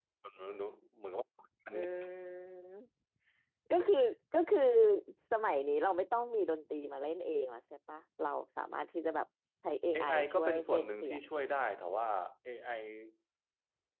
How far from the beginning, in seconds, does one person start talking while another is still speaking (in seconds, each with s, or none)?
9.9 s